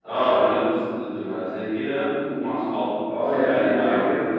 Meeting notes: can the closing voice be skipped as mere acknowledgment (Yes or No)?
No